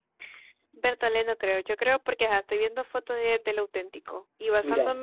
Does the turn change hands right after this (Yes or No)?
No